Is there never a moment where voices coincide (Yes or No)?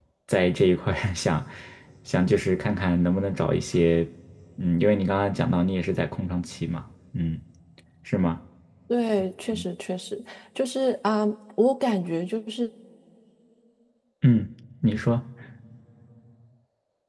Yes